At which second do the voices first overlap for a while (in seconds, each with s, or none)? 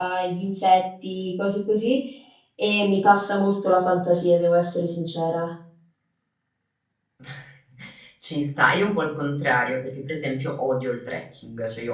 none